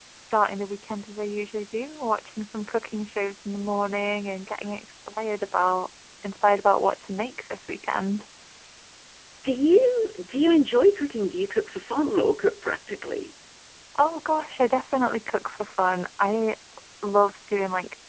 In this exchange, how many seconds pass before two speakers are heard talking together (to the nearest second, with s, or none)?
none